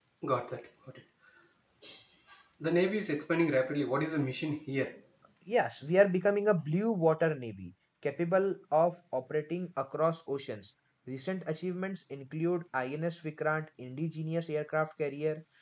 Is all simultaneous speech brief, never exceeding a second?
Yes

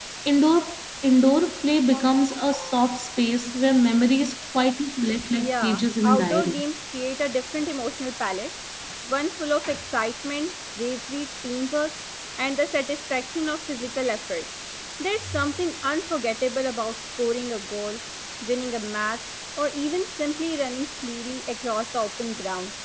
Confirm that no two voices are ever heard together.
No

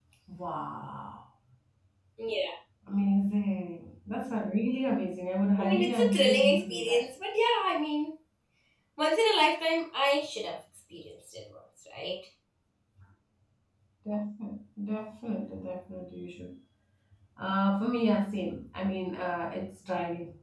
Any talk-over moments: Yes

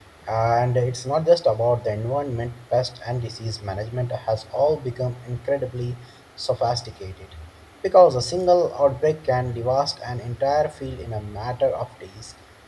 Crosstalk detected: No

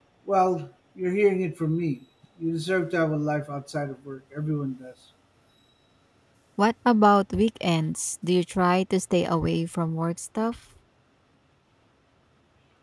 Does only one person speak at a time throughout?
Yes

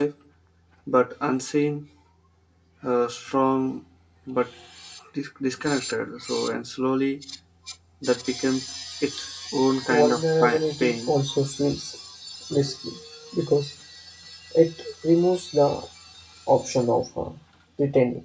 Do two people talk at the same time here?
Yes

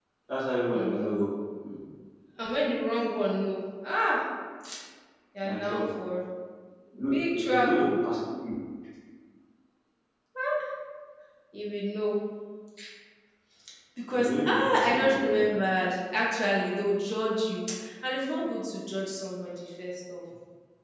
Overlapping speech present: Yes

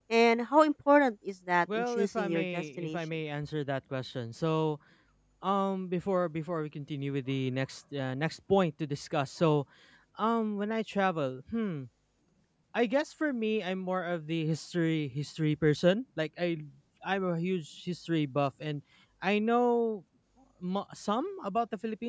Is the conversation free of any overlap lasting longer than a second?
No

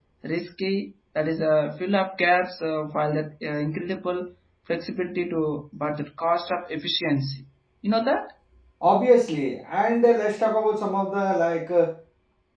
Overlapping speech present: No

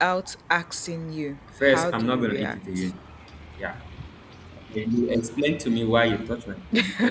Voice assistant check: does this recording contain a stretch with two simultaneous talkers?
Yes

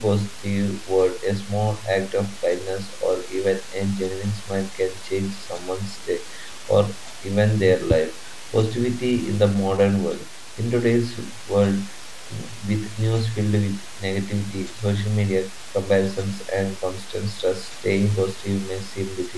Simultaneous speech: No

